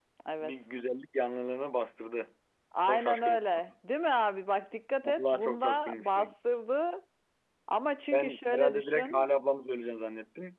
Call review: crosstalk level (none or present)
present